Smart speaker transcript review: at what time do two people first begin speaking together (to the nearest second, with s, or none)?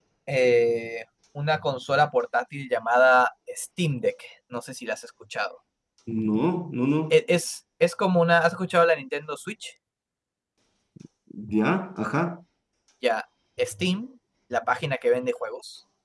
none